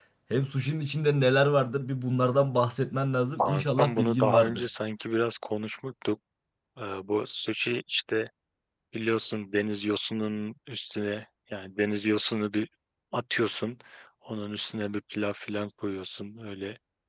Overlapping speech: Yes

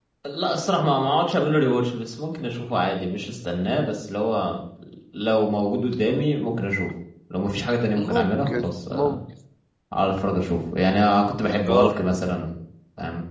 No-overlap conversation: No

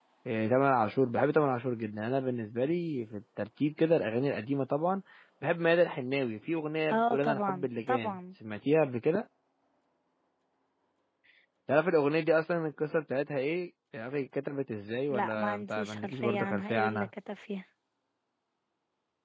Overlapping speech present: Yes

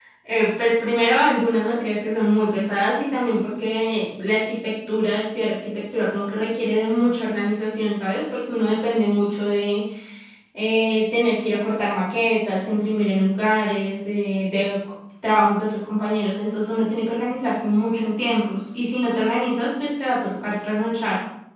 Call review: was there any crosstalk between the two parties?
No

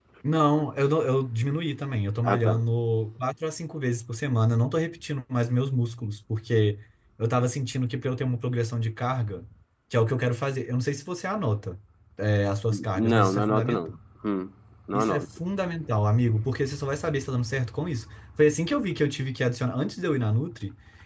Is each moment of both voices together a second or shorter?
No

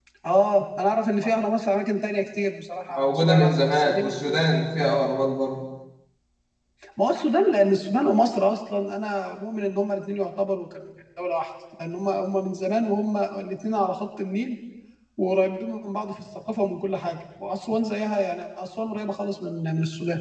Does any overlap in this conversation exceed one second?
Yes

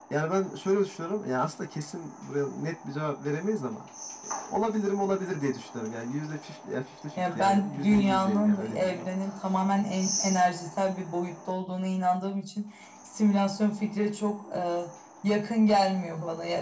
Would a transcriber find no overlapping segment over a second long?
No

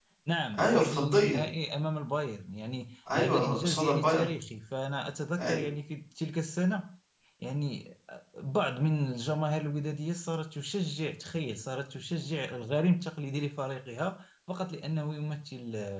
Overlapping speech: Yes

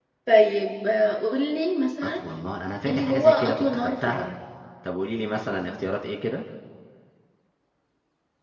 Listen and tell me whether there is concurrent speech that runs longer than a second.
Yes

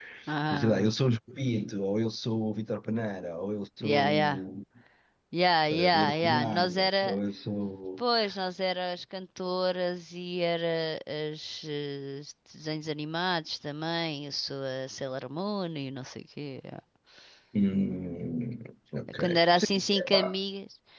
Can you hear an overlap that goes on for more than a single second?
Yes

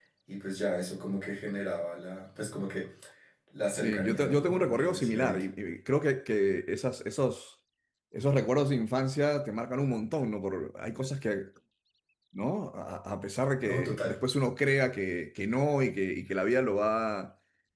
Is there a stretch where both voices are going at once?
Yes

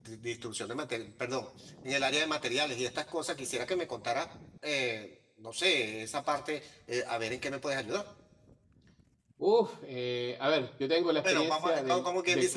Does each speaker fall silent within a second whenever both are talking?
No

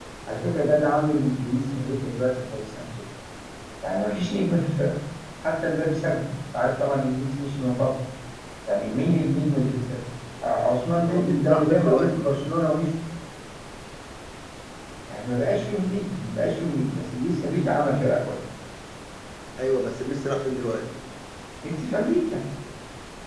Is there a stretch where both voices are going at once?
Yes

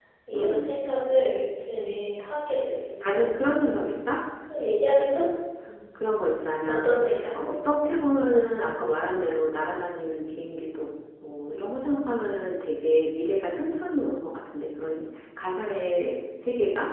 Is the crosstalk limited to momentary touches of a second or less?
Yes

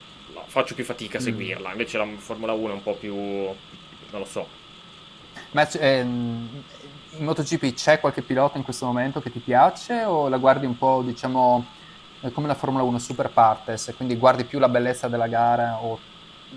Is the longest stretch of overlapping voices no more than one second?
Yes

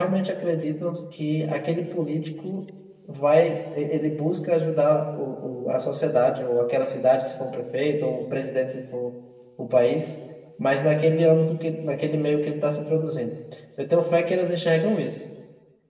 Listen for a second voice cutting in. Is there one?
No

